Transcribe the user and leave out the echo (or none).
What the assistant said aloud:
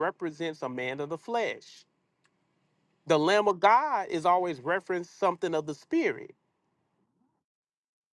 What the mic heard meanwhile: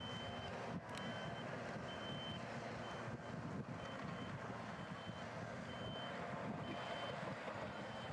none